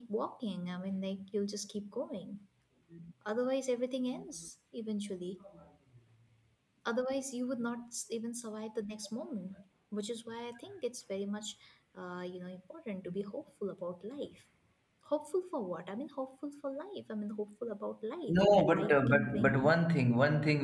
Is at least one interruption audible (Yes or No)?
Yes